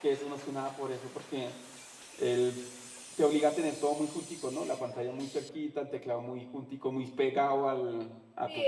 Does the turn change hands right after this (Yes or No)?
Yes